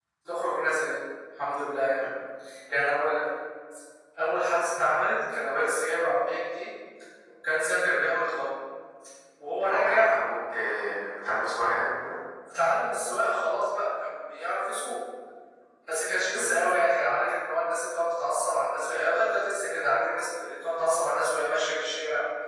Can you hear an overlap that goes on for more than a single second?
No

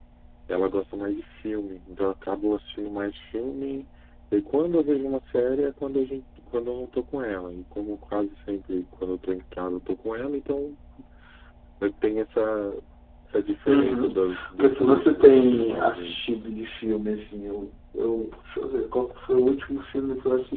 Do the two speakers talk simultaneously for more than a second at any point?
Yes, from 13.7 s

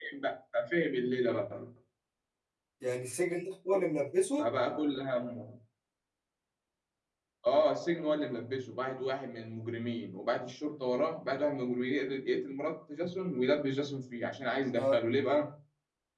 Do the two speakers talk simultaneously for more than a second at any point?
No

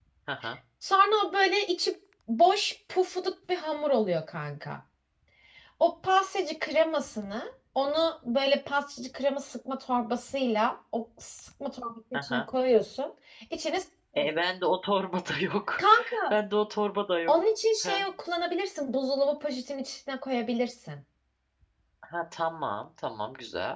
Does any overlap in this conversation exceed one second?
No

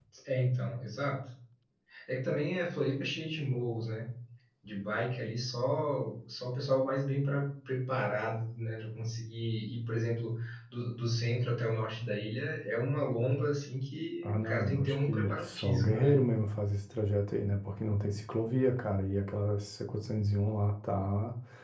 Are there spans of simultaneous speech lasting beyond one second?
Yes, from 14.2 s

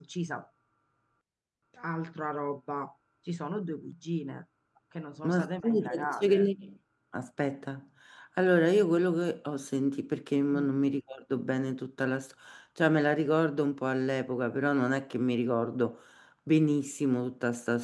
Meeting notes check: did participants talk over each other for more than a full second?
Yes, from 5.2 s

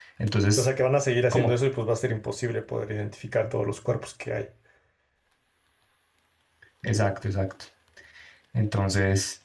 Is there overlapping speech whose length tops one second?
No

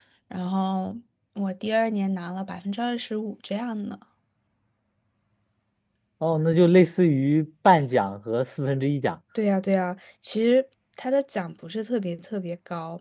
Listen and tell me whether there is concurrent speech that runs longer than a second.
No

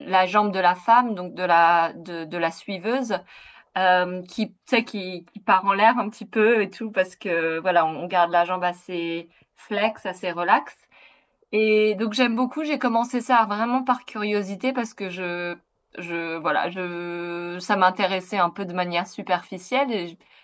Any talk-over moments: No

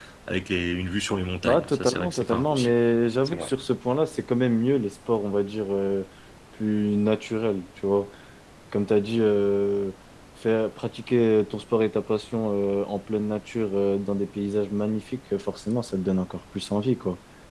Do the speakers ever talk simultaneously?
Yes, from 1.4 s

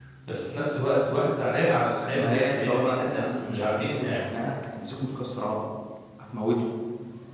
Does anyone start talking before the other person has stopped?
Yes, from 2.1 s

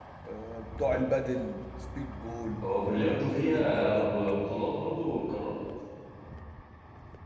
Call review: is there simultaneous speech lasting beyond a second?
Yes, from 2.6 s

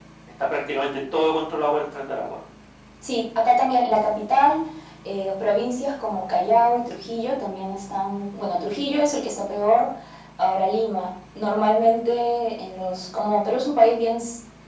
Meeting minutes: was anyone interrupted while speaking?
No

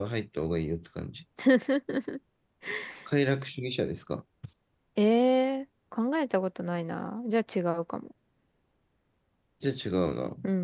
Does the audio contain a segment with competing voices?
No

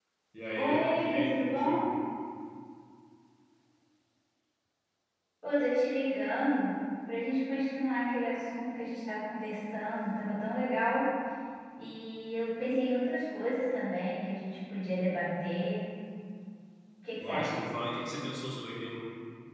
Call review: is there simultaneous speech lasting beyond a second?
Yes, from 0.6 s

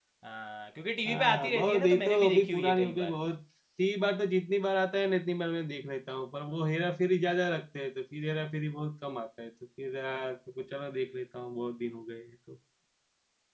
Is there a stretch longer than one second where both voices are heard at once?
Yes, from 1.1 s

